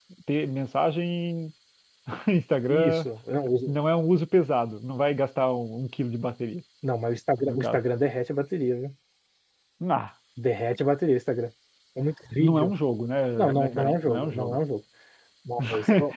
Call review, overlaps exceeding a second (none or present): present